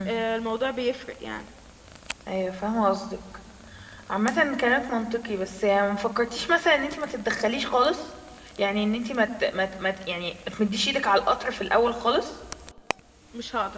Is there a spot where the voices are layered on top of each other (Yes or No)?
No